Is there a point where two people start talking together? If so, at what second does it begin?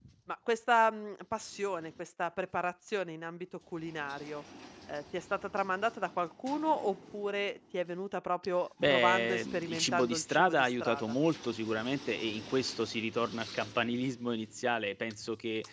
8.8 s

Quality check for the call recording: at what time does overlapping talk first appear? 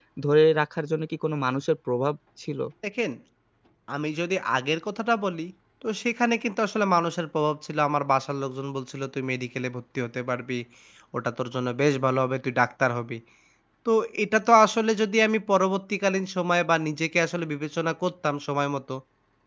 none

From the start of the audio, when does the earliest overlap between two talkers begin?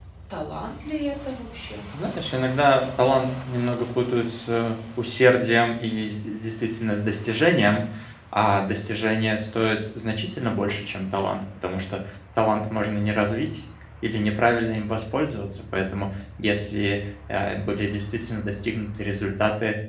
none

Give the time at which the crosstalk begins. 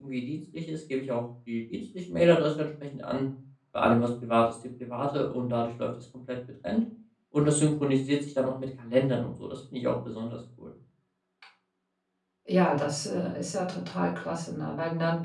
none

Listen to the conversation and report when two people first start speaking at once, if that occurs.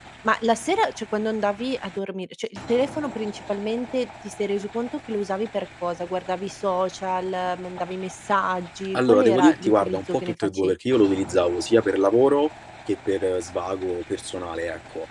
8.9 s

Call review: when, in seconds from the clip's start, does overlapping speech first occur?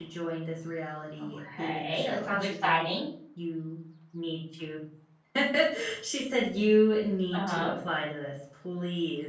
1.2 s

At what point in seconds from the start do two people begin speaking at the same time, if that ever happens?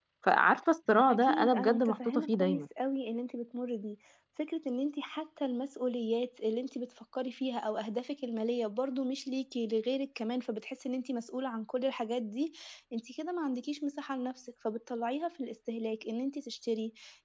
1.1 s

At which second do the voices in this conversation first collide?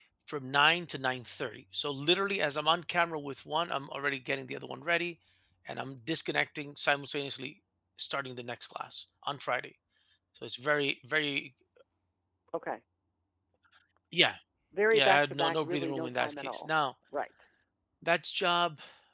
14.9 s

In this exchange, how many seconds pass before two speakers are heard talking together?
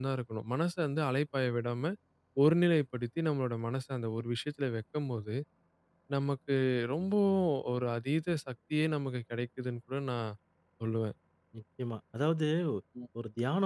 none

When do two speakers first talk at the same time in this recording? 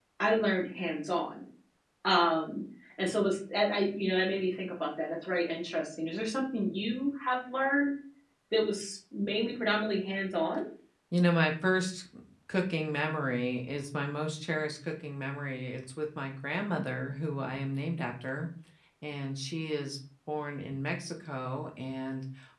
none

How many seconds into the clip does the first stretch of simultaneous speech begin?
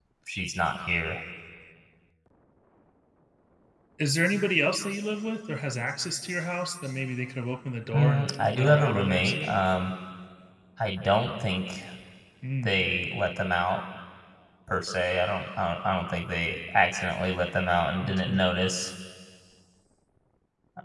7.9 s

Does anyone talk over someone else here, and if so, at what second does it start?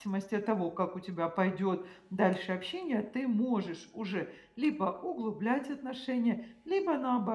none

